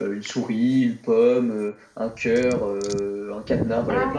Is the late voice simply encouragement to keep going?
No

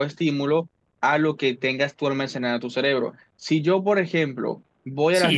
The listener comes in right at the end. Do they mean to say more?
Yes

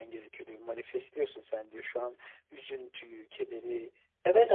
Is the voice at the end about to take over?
Yes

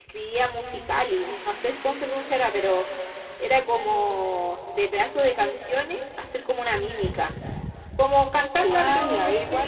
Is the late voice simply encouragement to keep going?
No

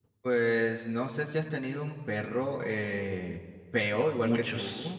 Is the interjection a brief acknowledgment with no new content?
Yes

